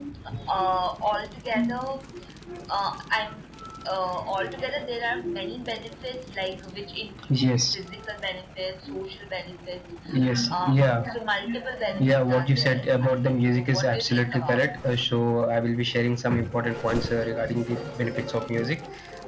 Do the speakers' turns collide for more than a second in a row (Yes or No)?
Yes